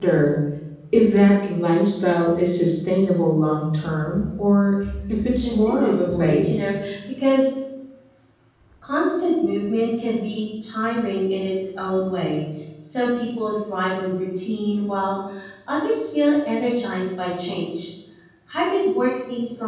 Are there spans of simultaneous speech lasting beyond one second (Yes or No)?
Yes